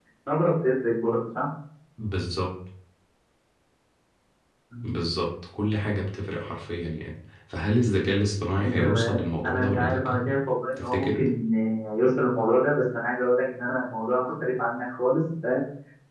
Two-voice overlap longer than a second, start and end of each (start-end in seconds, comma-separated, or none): 8.6-10.2